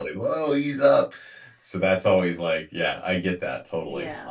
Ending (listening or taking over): taking over